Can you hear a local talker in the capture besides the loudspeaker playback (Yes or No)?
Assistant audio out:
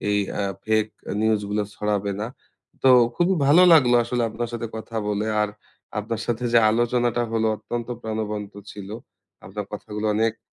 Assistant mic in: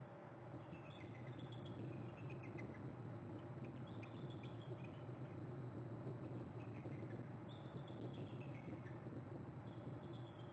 No